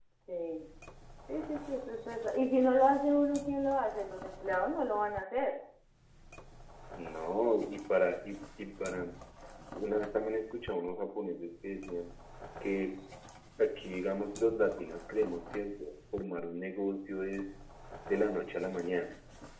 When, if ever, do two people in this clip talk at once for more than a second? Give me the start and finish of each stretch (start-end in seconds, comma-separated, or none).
none